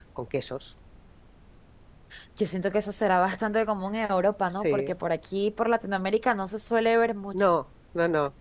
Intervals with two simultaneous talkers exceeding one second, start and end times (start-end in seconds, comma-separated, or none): none